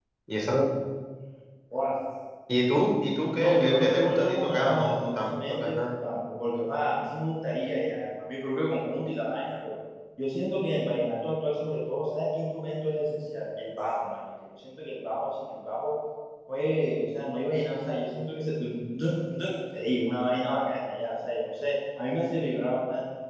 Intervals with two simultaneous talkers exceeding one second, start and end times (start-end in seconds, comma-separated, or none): 3.4-5.8